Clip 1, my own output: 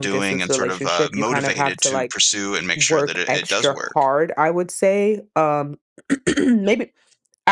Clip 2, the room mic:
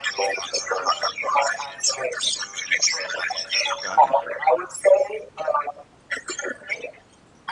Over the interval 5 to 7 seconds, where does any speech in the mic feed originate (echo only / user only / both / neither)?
echo only